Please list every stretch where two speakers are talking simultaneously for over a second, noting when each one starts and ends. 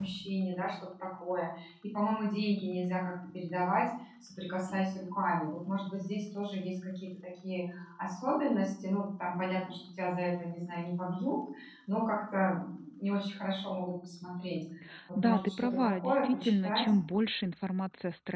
15.2-16.8

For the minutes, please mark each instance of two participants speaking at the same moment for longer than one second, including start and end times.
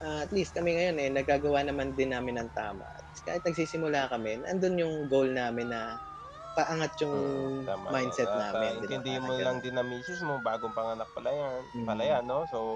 7.9-9.6

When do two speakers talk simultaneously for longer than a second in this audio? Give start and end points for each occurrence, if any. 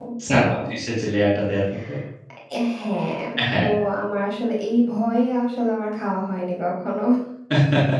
none

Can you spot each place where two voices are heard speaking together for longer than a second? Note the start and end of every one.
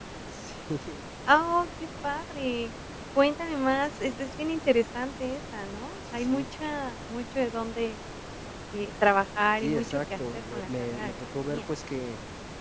9.6-11.6

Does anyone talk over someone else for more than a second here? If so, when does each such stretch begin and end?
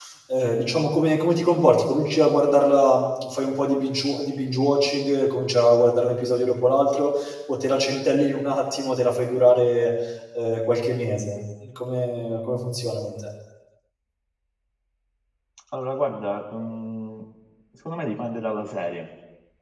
none

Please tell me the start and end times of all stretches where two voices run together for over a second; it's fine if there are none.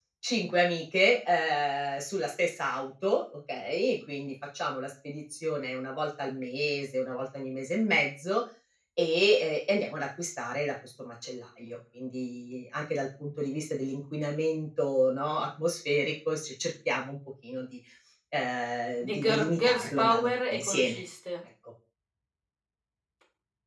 19.1-21.0

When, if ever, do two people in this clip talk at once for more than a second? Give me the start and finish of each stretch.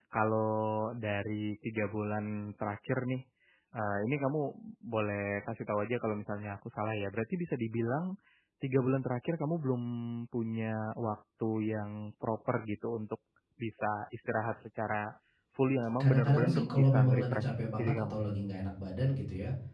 16.0-18.2

